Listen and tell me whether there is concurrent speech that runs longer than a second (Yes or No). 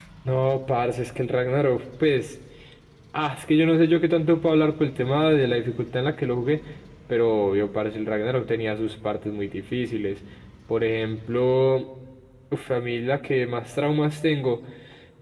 No